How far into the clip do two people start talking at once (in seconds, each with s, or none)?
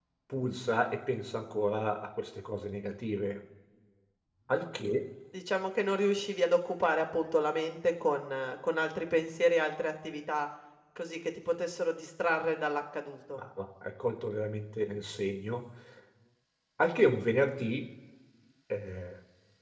none